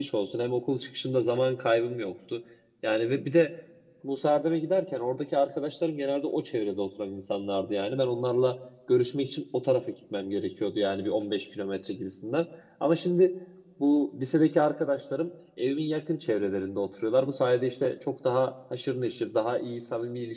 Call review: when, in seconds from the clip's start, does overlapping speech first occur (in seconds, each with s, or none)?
none